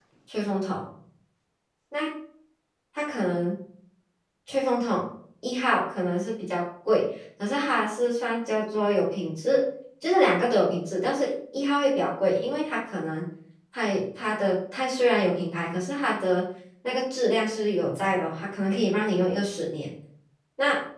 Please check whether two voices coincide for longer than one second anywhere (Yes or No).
No